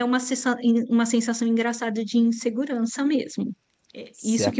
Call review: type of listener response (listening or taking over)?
listening